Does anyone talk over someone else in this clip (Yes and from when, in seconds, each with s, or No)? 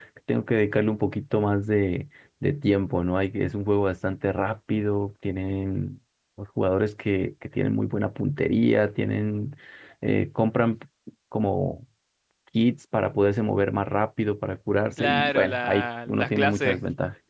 Yes, from 15.0 s